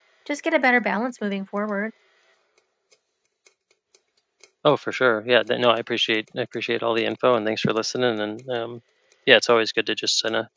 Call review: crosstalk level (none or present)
none